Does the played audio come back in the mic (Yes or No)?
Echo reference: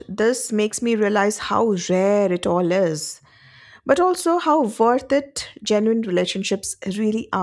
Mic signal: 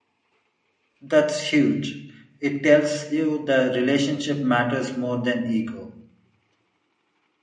No